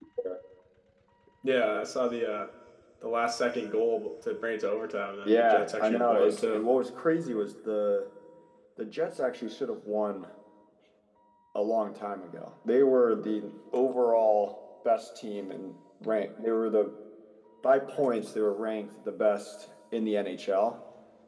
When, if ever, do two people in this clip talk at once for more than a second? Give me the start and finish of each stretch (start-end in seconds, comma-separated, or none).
5.2-6.7